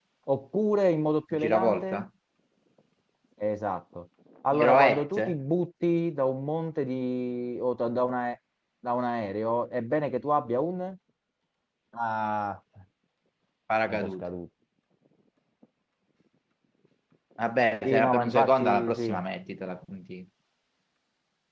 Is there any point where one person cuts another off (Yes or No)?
Yes